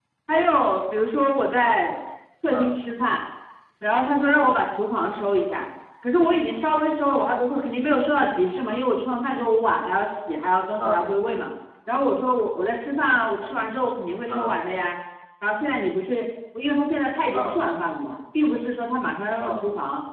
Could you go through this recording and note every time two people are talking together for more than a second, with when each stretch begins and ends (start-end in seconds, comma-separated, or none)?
none